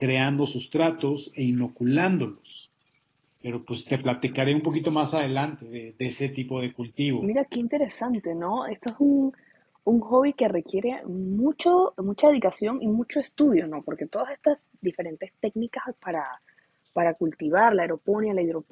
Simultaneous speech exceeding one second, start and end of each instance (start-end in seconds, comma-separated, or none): none